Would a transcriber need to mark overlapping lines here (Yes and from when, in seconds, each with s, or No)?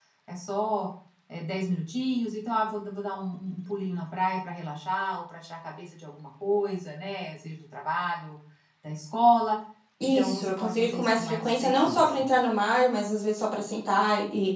Yes, from 10.1 s